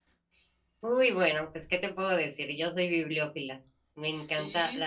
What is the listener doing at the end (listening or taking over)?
listening